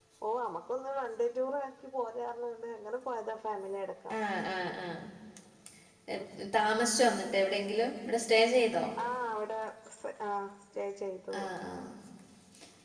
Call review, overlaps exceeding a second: none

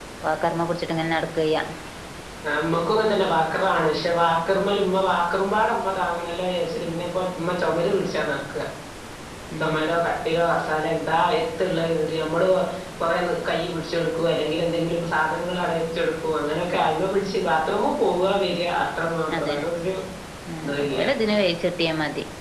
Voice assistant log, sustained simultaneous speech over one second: none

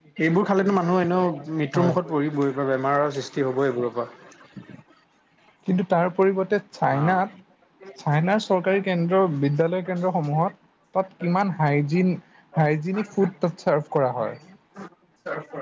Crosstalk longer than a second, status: none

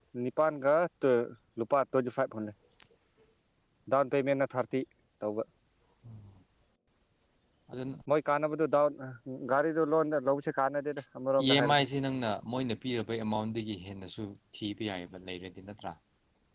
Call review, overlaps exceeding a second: none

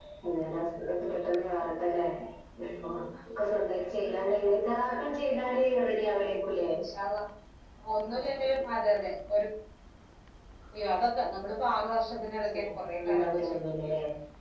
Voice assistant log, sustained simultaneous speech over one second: present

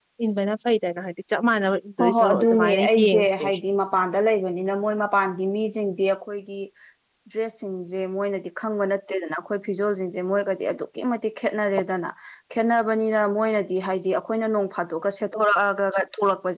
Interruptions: present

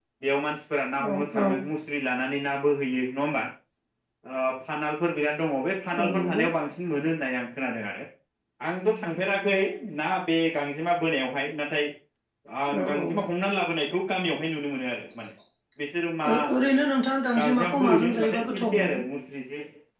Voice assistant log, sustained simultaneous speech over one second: present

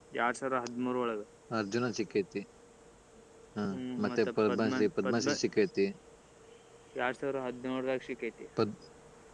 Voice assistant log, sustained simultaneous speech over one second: present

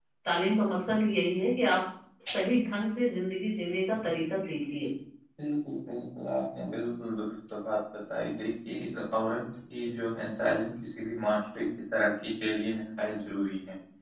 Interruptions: none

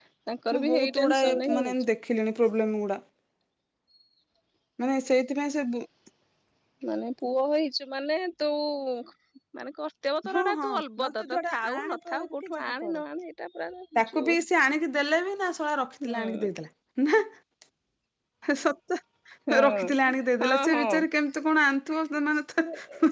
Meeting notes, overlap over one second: present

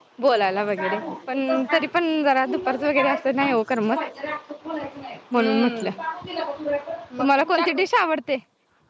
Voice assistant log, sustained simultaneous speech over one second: present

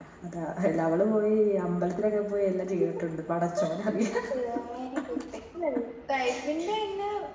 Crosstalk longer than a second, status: none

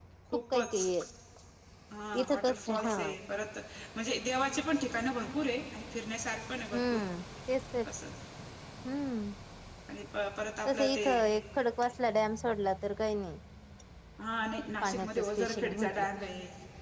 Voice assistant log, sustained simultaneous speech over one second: present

